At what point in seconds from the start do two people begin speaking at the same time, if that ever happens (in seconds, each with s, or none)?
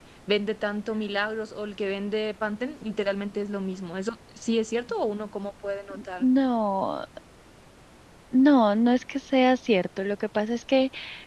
none